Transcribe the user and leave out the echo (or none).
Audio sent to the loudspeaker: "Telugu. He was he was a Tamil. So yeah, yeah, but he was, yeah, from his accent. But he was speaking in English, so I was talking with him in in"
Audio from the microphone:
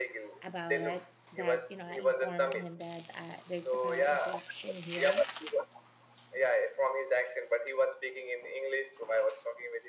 about it that, you know, I informed him that uh, there's a power interruption here.